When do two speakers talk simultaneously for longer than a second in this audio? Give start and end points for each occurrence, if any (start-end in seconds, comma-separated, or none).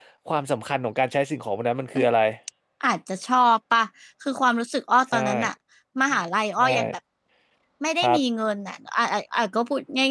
none